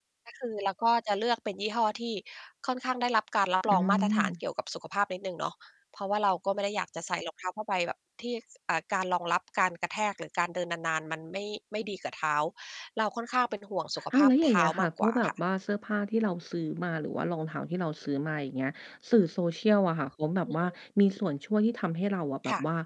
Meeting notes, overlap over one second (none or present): present